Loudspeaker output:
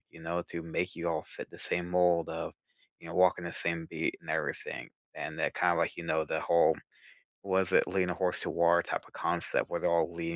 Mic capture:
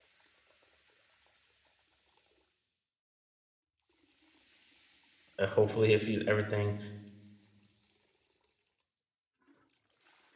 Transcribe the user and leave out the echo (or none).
uh, hopefully, if you, everything,